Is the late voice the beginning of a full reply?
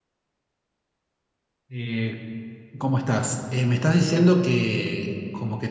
No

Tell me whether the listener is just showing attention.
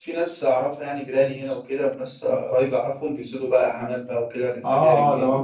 No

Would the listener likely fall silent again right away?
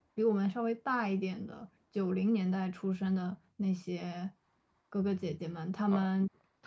No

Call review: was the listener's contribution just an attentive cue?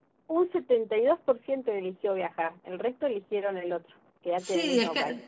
No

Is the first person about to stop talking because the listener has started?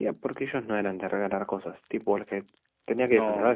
Yes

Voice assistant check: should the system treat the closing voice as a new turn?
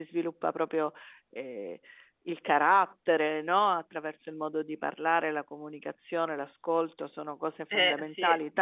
No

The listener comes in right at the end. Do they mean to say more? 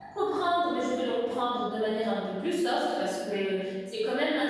No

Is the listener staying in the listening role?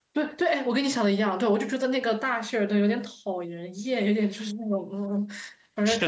No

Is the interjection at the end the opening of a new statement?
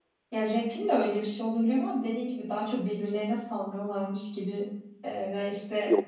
No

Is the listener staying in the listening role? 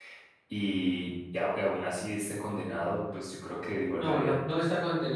No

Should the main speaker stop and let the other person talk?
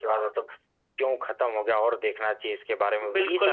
Yes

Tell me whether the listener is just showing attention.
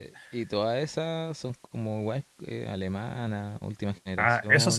No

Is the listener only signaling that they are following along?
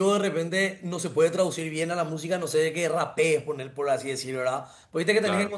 Yes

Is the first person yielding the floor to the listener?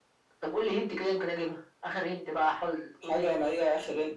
Yes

